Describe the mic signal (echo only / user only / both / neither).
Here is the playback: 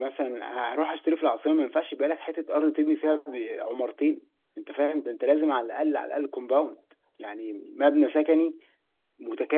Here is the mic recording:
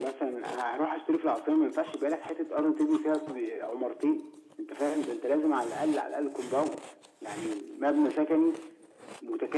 echo only